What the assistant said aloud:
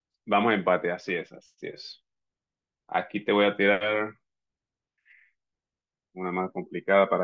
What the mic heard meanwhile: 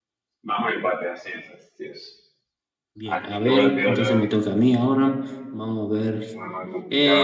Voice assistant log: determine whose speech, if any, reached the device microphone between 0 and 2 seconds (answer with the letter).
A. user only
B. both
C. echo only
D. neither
C